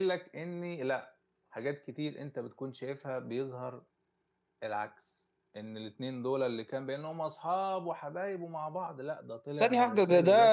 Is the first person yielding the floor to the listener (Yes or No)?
Yes